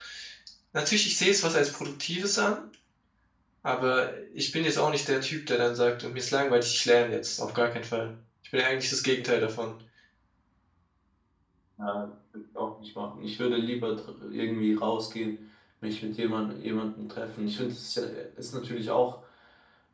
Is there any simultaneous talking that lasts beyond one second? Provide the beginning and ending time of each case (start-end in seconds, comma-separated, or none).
none